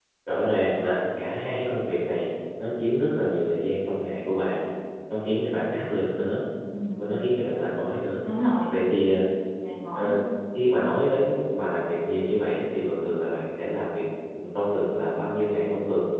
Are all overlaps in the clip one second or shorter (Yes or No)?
Yes